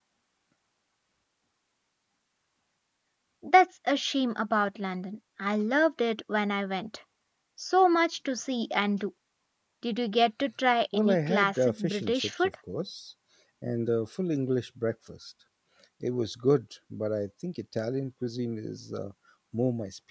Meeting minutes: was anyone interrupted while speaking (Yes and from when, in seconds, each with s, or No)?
Yes, from 10.9 s